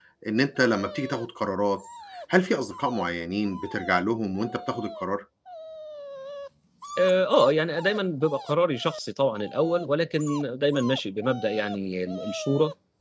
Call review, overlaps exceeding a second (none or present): none